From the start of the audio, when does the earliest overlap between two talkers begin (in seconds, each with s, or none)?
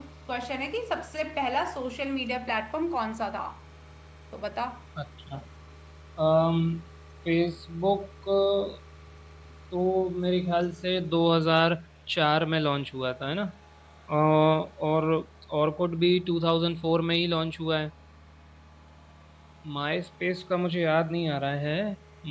none